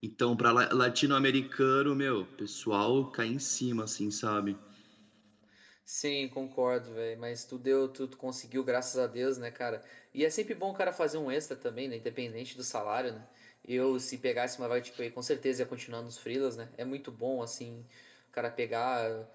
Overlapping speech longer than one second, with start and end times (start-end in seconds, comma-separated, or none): none